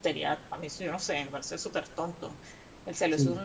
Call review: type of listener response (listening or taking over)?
listening